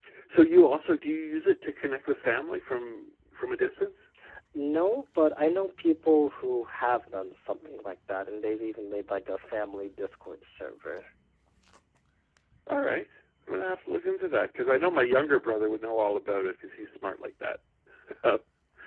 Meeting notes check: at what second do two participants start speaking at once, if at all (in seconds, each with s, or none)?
none